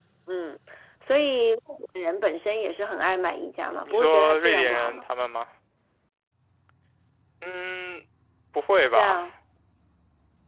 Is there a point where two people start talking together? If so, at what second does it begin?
3.8 s

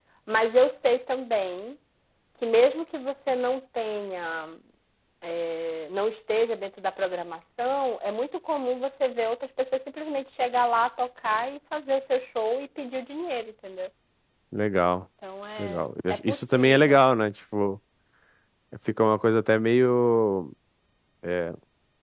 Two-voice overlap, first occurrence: 15.6 s

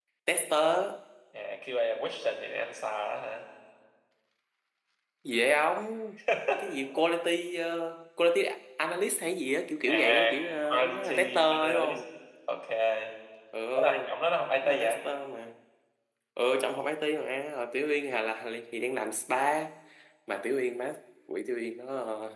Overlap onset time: 9.9 s

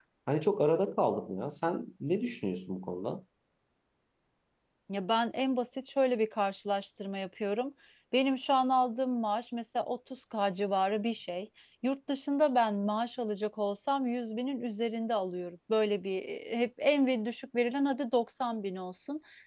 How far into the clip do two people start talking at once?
none

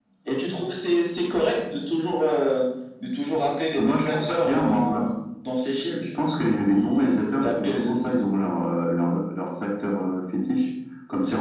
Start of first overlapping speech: 3.7 s

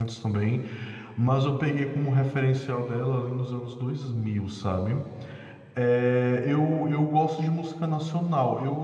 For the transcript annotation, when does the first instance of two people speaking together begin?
none

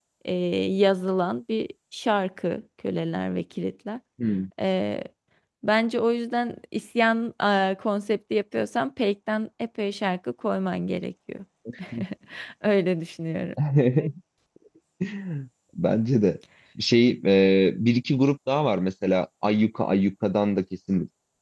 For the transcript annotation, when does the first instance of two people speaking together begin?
none

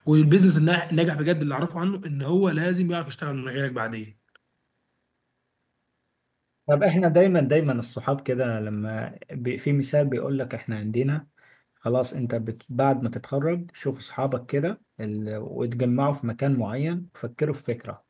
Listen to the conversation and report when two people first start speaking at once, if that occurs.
none

